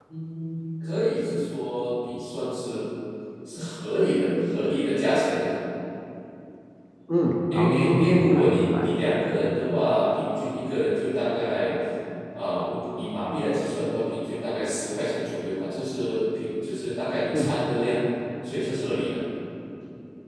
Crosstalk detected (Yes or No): Yes